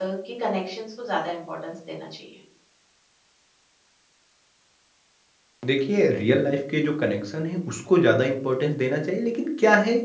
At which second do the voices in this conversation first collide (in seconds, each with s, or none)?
none